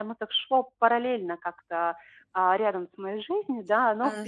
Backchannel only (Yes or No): No